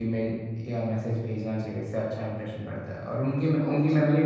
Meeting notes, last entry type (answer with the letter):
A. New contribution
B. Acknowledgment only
B